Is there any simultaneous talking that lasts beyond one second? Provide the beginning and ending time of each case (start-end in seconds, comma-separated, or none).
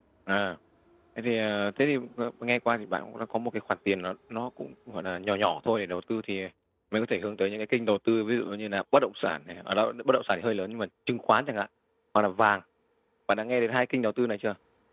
none